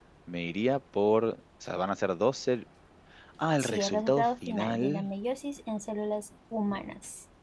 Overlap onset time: 4 s

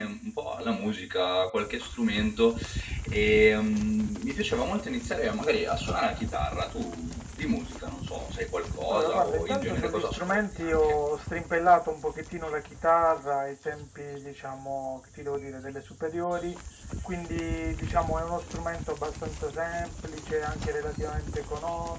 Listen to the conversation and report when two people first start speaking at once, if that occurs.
9 s

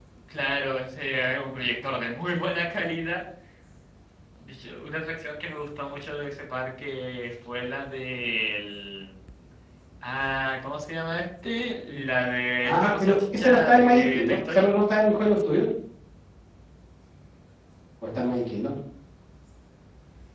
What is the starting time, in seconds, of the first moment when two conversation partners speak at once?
13 s

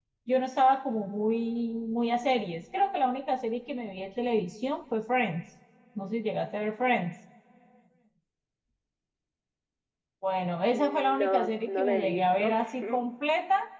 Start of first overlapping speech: 11 s

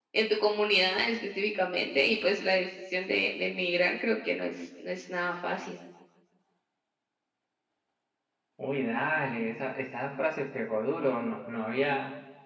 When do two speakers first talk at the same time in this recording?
none

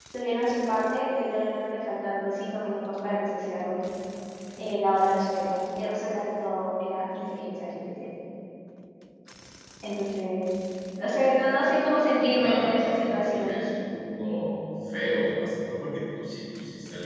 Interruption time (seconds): 12 s

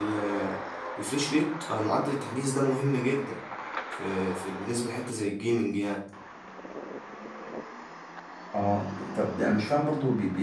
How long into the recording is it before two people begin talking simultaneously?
none

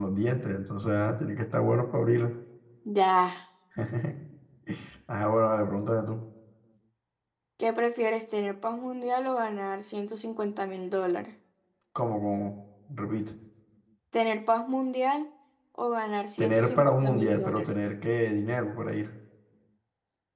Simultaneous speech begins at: 16 s

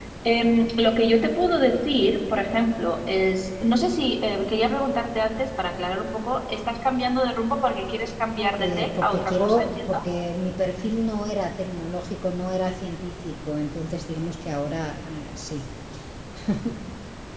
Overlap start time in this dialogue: 9 s

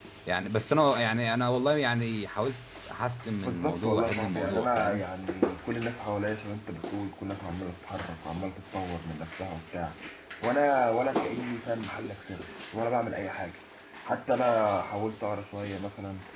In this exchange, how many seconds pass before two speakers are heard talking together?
3 s

